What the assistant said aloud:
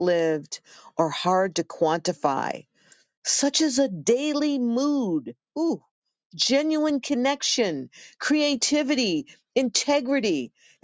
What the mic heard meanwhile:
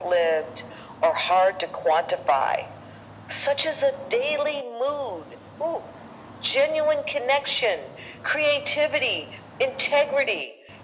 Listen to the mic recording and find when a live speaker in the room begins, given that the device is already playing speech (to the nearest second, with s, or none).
none